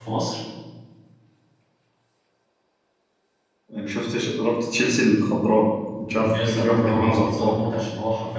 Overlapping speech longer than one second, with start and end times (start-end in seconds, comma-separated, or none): 6.3-7.6